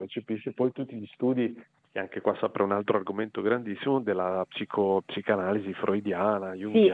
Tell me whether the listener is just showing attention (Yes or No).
No